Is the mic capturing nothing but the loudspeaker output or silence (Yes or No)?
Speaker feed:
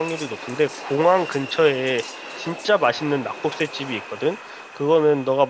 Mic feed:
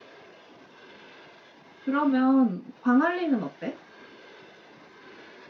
No